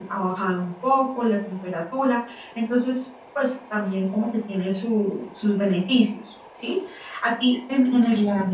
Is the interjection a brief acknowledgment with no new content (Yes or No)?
Yes